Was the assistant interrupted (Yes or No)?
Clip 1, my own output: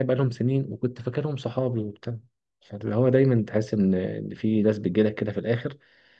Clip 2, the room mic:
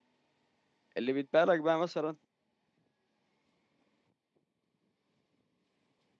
Yes